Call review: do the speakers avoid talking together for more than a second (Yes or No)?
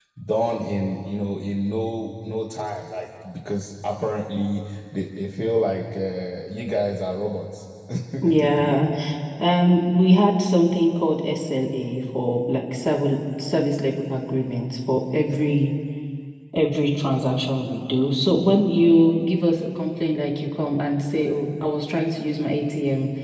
Yes